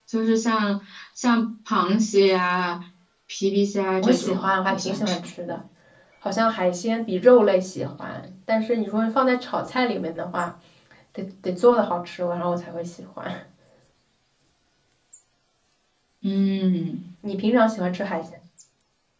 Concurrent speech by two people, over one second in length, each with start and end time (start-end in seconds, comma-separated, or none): 4.0-5.3